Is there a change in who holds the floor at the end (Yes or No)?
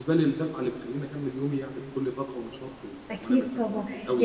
Yes